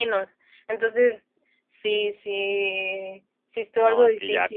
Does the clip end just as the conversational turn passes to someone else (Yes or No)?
Yes